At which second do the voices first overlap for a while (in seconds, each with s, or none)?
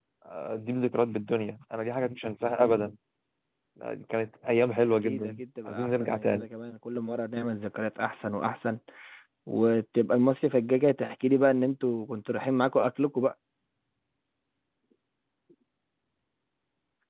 5.0 s